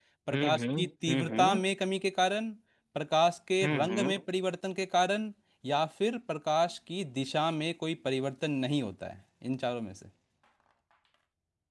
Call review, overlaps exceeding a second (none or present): present